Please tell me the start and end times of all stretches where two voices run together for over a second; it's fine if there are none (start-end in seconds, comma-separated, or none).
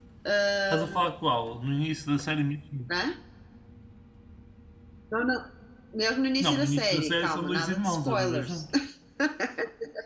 6.4-8.6